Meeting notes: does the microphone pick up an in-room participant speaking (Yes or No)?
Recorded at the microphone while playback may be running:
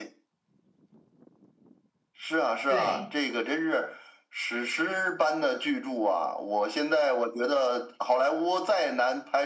Yes